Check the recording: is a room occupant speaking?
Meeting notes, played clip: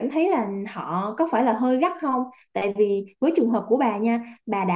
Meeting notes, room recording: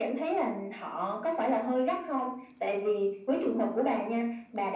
No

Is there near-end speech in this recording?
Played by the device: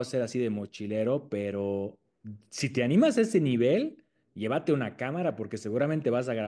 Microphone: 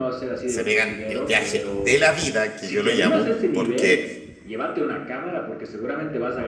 Yes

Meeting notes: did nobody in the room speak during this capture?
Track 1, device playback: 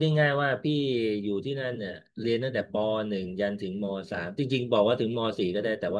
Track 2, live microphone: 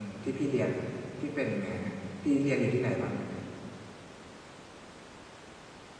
No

